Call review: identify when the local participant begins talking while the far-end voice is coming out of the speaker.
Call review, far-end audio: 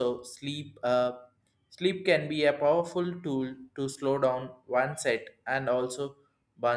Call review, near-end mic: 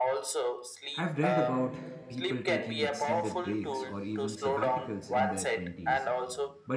0.9 s

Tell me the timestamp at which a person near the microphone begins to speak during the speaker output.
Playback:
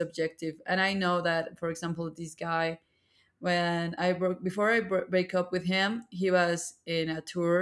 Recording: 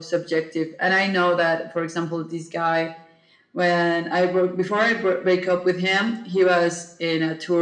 none

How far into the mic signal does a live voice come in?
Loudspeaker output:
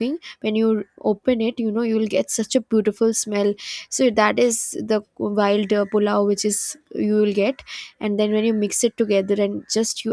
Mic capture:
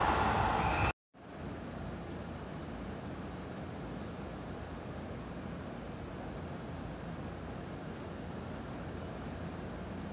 none

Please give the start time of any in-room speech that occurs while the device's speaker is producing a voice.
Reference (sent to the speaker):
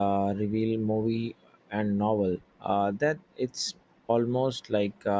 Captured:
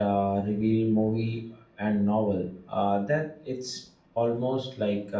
none

